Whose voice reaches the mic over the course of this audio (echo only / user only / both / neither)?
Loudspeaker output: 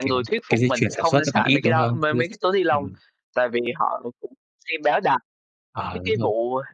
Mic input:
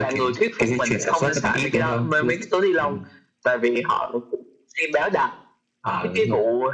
echo only